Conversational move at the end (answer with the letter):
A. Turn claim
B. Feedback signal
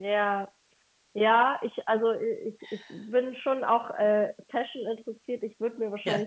B